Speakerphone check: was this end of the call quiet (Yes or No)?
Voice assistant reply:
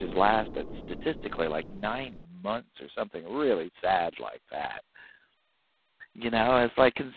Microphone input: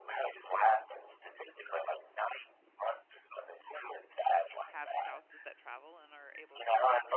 No